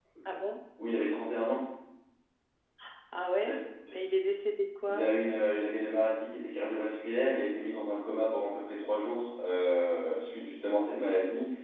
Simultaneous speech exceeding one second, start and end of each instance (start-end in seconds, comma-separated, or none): none